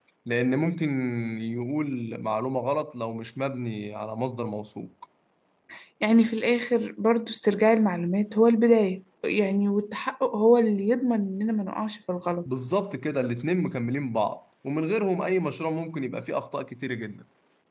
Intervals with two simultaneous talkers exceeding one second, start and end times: none

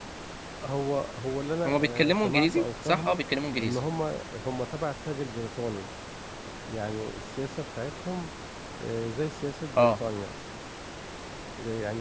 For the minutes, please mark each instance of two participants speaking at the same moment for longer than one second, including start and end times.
1.6-3.2

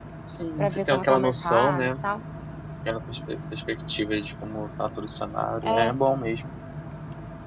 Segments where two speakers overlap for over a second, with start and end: 0.6-1.9

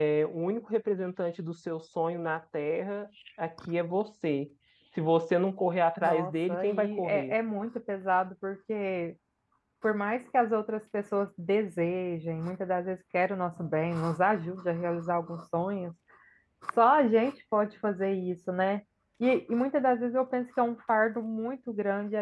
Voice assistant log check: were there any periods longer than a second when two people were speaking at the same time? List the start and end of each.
6.0-7.3

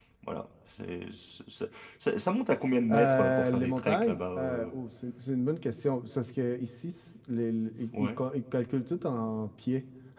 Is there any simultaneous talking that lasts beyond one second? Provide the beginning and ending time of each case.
2.9-4.7

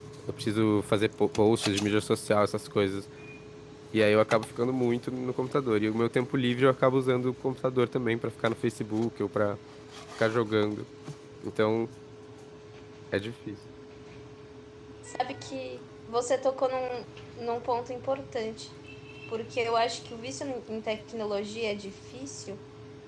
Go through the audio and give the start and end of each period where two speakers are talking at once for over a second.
none

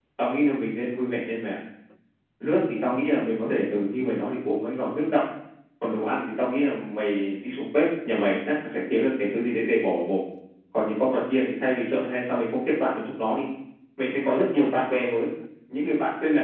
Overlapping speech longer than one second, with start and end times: none

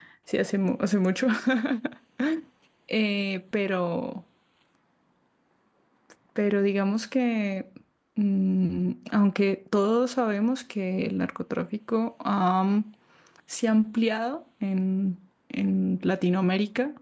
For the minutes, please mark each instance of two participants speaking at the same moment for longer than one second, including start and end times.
none

